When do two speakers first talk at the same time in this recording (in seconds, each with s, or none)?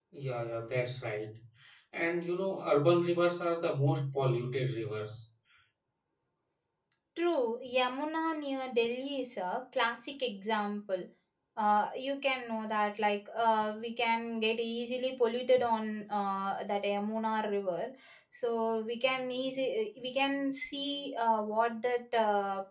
none